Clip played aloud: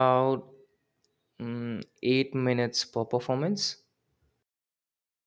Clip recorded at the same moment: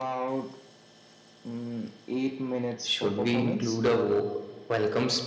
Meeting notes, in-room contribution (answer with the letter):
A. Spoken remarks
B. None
A